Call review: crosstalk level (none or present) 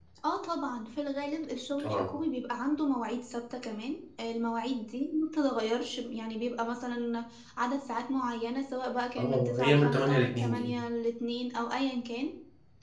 present